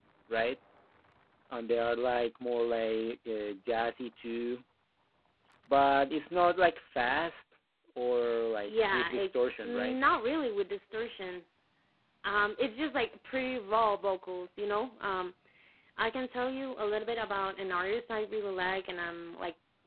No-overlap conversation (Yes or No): No